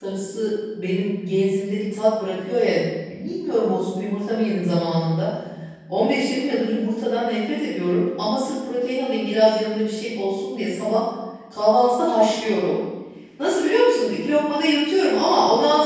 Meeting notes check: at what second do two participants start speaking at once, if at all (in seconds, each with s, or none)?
none